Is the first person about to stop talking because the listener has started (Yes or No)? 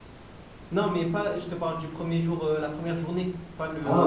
Yes